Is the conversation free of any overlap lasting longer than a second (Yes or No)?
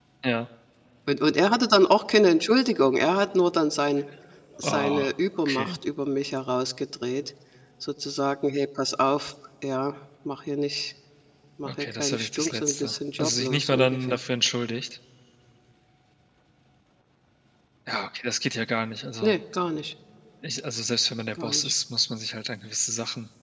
No